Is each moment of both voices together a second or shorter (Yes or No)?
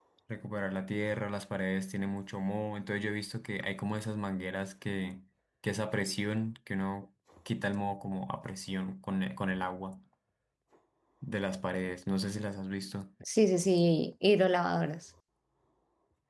Yes